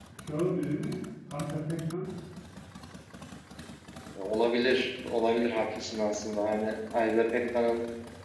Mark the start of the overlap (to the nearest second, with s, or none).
none